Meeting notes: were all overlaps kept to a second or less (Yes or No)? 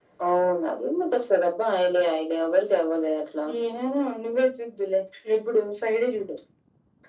Yes